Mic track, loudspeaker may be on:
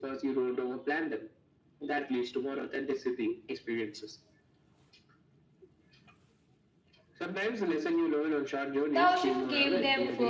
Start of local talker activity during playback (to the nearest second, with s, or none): 9 s